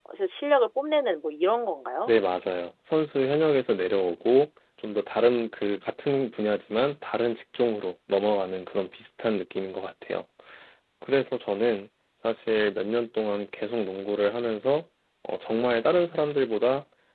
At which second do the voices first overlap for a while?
none

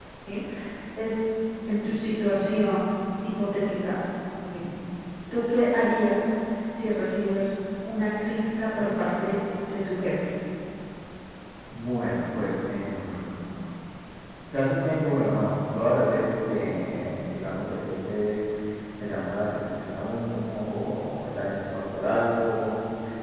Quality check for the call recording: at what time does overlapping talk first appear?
none

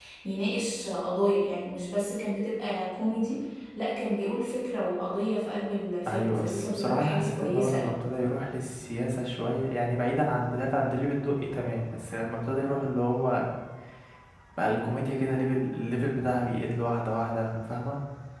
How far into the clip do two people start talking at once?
6 s

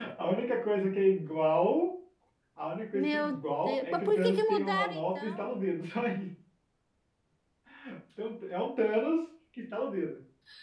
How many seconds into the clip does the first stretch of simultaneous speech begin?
3 s

